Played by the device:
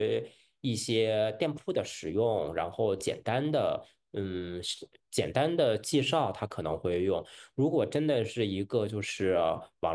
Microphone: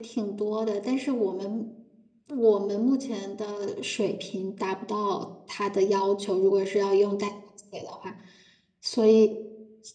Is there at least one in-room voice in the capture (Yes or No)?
Yes